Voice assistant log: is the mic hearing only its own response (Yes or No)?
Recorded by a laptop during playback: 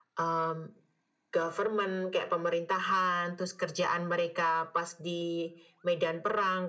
Yes